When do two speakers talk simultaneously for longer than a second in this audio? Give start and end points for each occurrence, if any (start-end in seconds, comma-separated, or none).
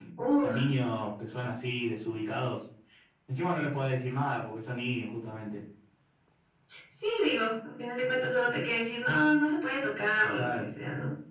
none